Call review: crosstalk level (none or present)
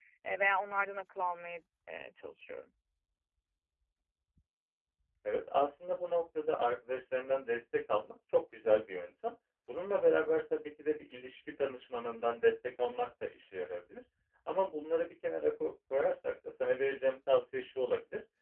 none